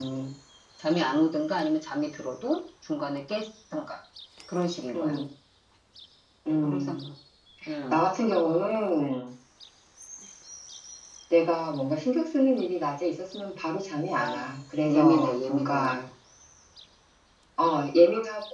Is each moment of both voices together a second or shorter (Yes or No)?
No